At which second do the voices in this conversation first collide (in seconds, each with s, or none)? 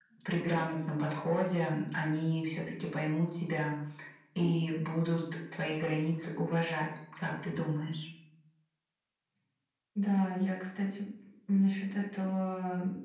none